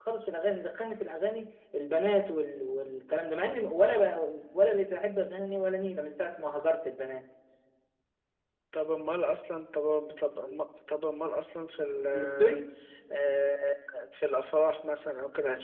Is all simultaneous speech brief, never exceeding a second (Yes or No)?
Yes